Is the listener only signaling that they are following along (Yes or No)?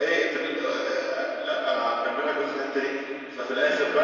Yes